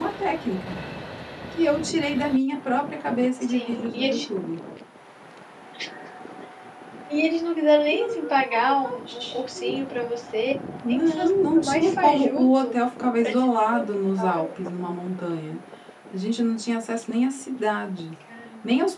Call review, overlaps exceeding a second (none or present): present